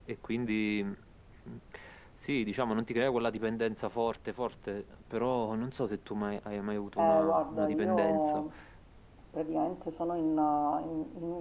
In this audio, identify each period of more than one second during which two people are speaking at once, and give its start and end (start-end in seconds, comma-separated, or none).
7.0-8.4